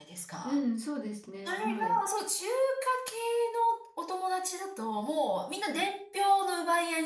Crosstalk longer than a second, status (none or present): none